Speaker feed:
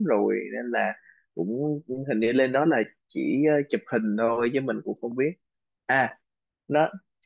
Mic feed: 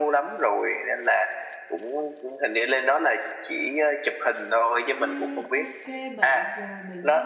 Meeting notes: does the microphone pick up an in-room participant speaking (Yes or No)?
Yes